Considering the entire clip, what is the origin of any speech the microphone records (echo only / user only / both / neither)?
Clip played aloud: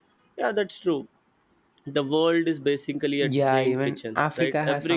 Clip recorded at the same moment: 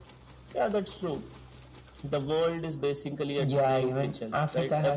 echo only